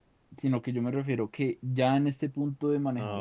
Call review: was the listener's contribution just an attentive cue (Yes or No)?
Yes